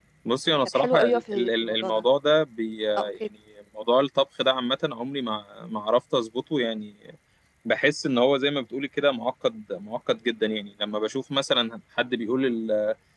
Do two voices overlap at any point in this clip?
Yes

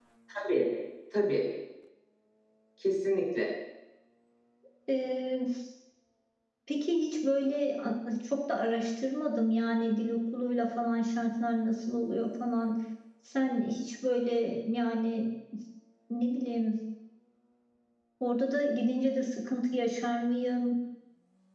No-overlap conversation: Yes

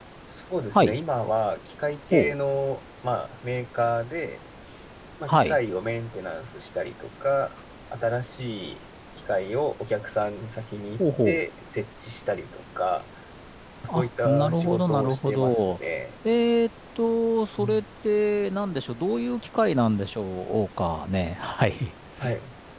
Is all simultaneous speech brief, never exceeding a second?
No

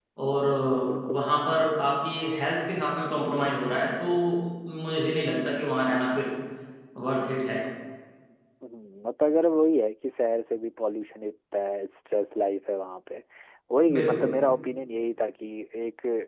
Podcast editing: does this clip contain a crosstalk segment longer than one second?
No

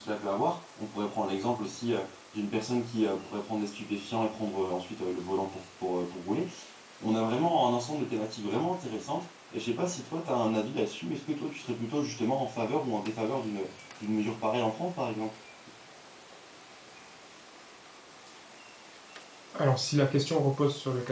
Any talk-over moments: No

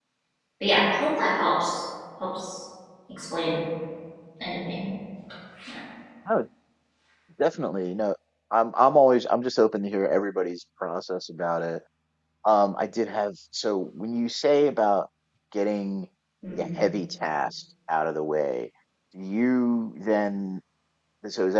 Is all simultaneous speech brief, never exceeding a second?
Yes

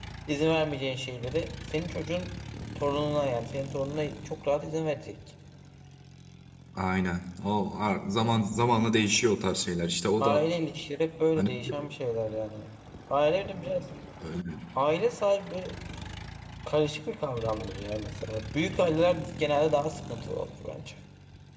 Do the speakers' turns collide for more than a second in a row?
No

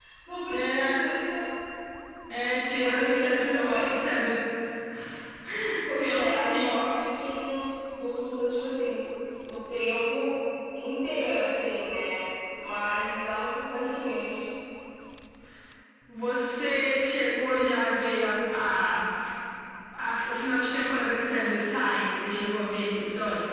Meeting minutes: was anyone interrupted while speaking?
Yes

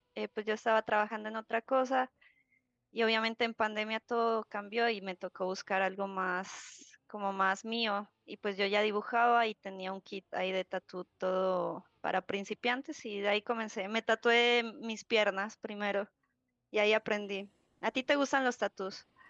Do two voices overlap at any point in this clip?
No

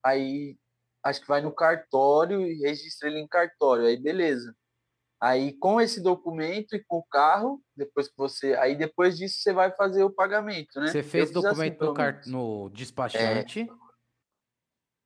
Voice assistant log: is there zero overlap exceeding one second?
No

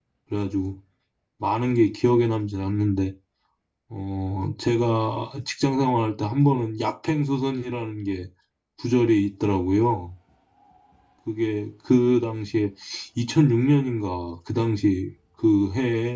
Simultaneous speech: No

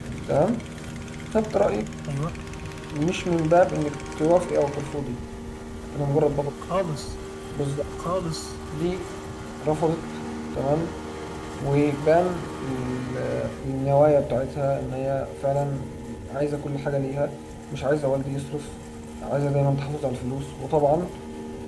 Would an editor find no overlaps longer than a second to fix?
Yes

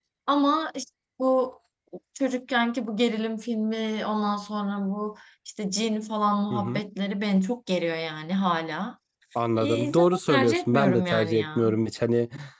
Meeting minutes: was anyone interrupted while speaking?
Yes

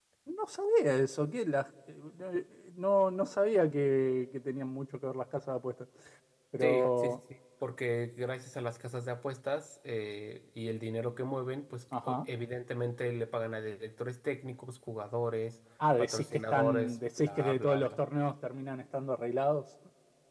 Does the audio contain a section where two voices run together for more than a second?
Yes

